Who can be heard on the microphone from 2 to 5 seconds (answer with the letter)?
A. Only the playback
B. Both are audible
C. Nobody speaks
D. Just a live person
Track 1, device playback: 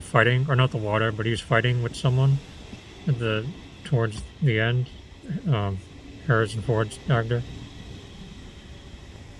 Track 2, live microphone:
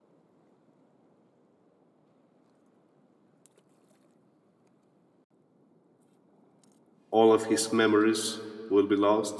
C